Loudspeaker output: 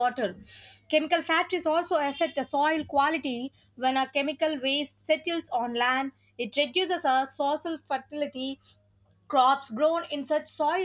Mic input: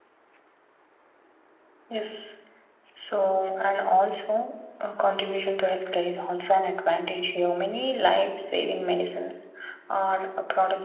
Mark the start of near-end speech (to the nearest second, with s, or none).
2 s